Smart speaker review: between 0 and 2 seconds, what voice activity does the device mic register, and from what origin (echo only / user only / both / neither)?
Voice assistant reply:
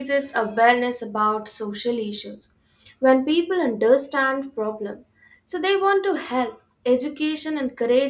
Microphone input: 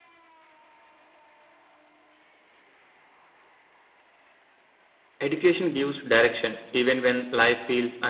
neither